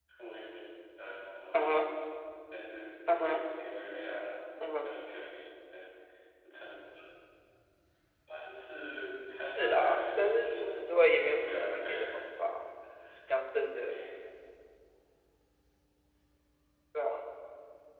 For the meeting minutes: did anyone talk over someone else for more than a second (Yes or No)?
Yes